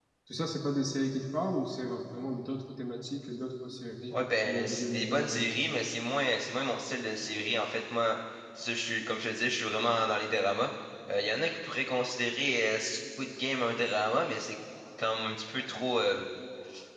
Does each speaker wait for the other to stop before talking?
No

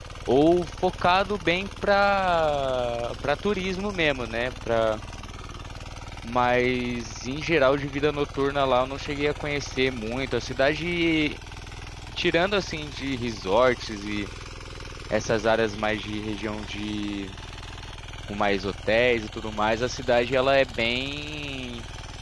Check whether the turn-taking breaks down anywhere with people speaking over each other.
No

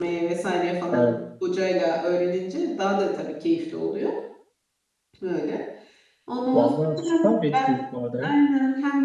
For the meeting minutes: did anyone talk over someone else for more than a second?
Yes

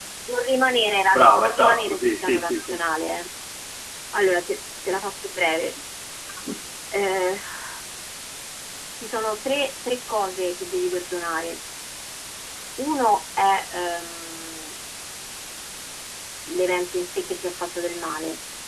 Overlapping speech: Yes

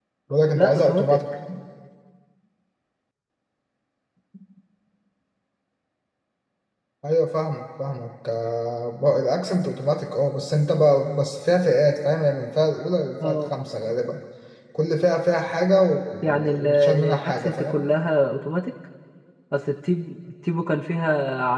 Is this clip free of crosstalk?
No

